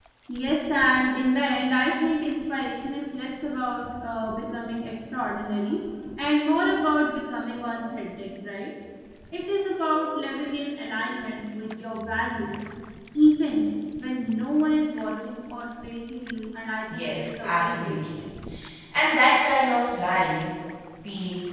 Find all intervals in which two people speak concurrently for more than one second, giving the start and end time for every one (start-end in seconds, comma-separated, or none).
16.9-18.2